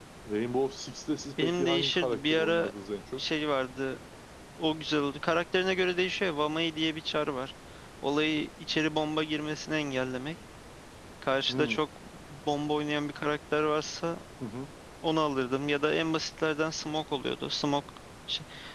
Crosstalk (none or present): present